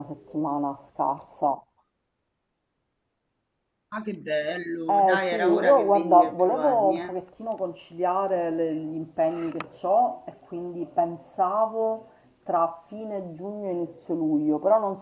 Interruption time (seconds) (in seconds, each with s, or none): 4.9 s